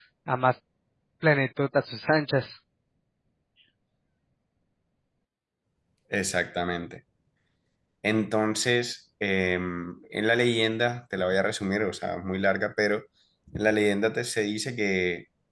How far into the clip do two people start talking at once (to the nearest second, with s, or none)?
none